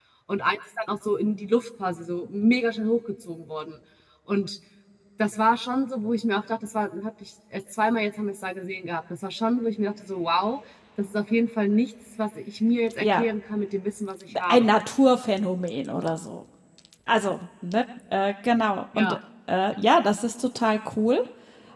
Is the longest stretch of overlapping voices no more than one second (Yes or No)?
Yes